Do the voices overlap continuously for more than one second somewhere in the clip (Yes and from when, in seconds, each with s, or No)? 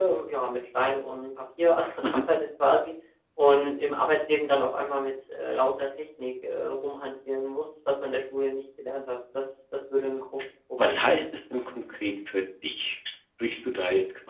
No